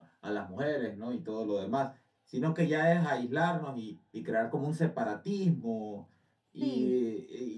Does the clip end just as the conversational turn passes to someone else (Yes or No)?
No